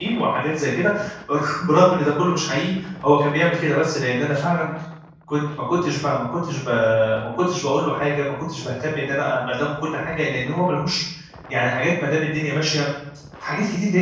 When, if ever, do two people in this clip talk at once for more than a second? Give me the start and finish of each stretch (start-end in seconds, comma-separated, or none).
none